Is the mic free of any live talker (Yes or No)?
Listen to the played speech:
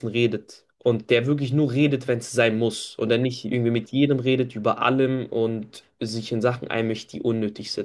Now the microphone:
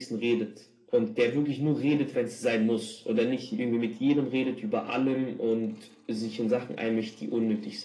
Yes